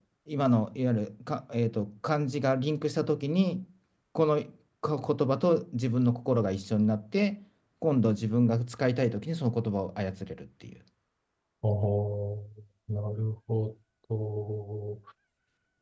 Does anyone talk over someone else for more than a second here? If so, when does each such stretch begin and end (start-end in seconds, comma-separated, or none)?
none